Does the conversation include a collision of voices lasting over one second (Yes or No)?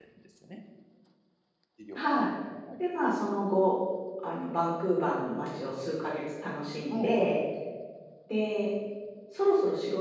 No